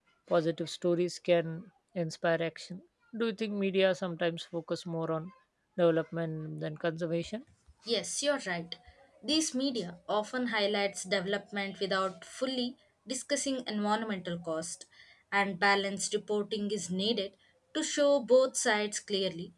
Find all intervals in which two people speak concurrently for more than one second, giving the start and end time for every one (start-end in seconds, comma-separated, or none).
none